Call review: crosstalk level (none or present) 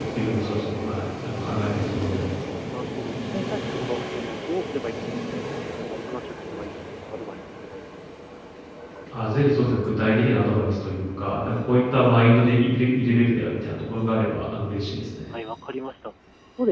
none